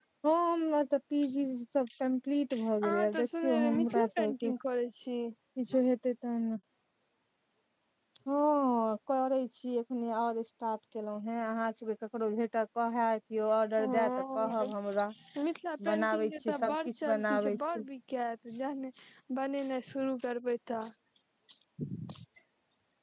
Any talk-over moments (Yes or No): Yes